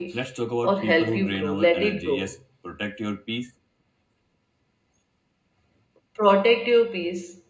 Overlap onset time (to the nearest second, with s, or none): 1 s